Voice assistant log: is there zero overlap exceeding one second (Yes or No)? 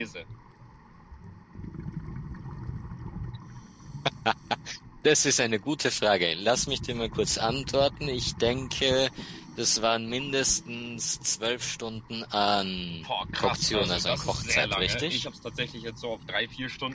No